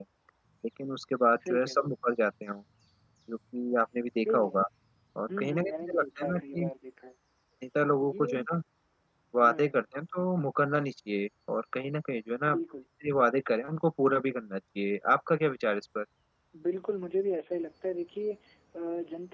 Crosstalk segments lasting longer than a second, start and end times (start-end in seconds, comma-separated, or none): 5.4-6.7